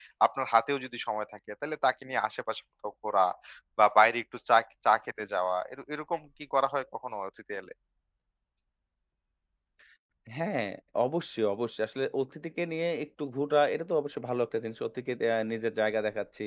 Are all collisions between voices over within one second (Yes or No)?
Yes